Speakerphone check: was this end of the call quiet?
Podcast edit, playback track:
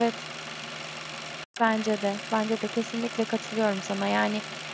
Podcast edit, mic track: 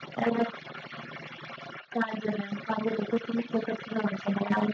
Yes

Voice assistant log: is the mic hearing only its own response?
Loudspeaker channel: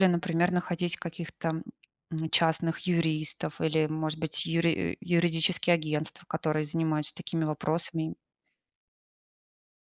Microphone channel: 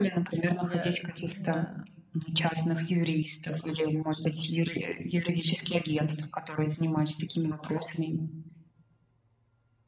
No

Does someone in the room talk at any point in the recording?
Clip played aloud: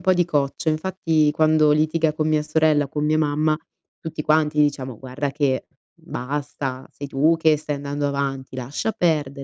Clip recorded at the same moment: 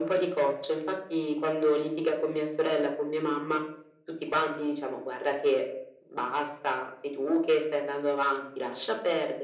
No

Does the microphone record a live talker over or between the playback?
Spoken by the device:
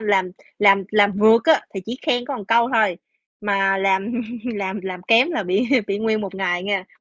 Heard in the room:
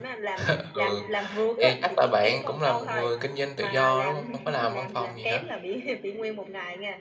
Yes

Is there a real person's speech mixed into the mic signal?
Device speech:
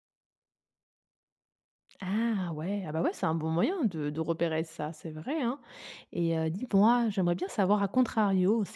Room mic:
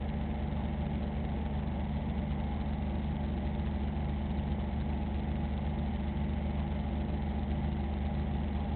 No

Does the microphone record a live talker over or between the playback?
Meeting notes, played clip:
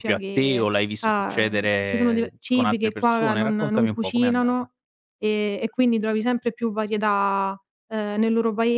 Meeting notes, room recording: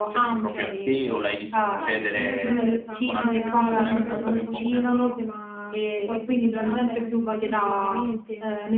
Yes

